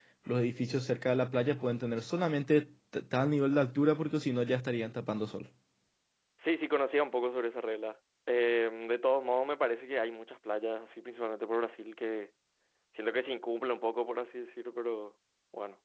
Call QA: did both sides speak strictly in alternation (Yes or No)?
Yes